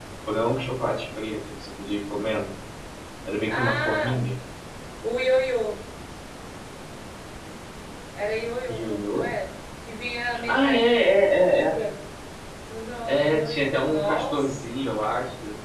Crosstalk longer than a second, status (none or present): present